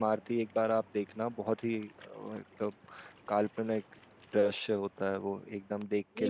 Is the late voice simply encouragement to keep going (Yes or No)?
No